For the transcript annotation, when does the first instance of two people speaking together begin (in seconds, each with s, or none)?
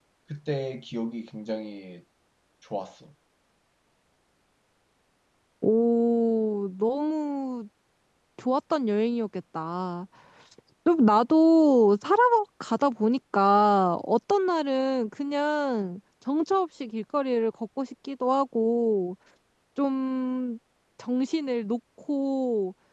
none